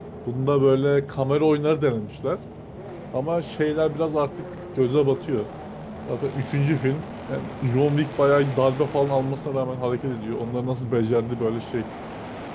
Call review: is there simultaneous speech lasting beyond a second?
No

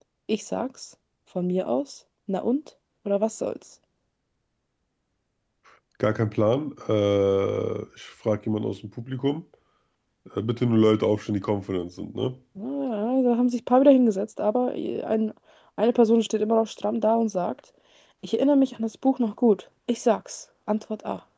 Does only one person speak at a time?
Yes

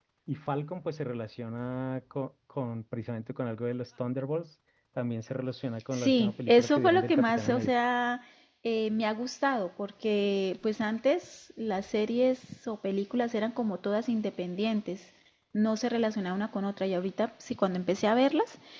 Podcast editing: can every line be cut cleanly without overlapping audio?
No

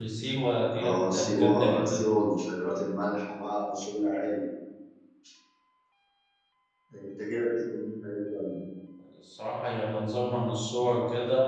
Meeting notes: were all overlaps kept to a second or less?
No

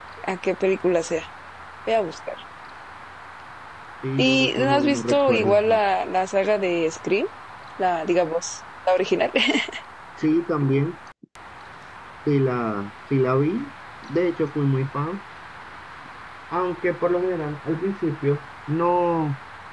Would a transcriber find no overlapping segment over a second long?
No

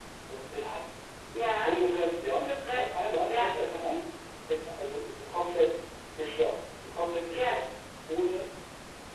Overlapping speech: Yes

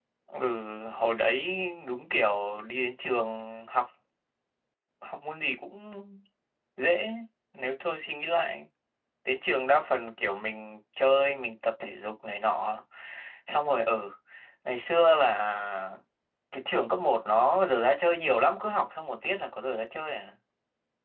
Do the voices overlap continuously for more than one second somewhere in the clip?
No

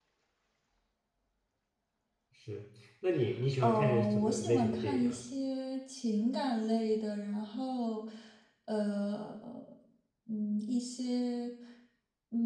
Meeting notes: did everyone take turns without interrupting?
No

